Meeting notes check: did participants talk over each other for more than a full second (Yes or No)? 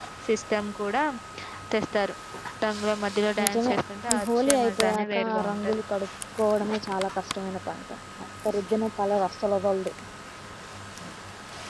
Yes